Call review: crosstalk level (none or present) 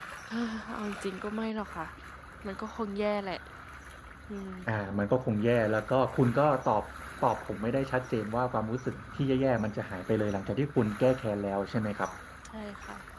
none